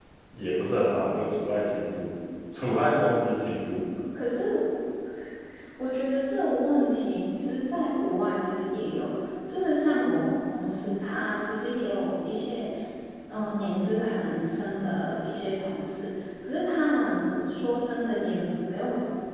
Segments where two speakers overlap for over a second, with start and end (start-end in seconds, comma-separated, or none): none